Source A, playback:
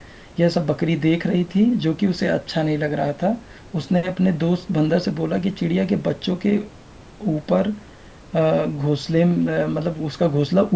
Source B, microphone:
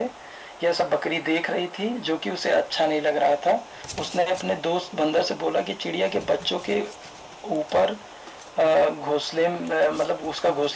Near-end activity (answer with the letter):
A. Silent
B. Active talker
A